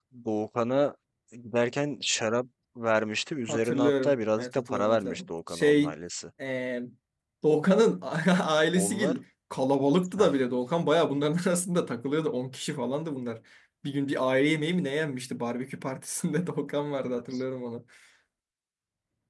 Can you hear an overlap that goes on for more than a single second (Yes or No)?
Yes